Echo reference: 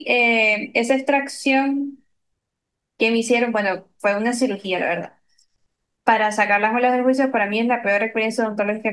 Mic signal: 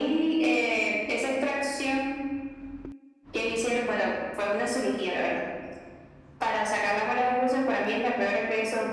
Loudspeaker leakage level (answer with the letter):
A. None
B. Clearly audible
B